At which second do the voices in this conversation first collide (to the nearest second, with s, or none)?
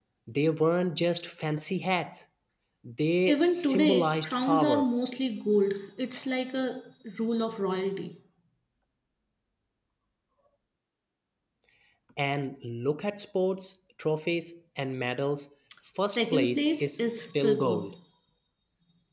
3 s